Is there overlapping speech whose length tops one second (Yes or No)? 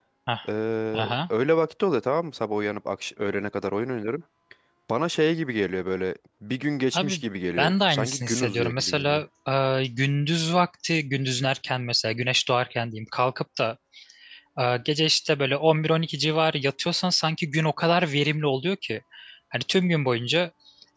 Yes